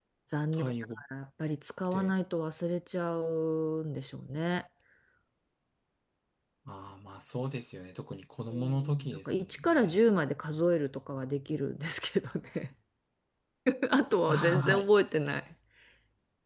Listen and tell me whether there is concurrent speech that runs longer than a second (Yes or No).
Yes